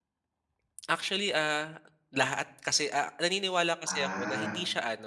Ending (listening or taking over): listening